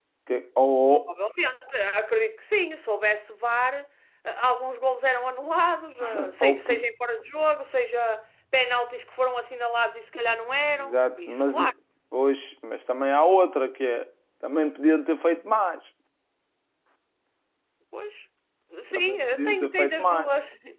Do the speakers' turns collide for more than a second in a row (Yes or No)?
Yes